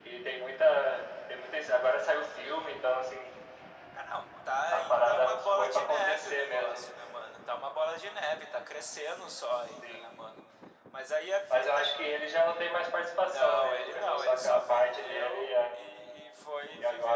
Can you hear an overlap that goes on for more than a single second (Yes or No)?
Yes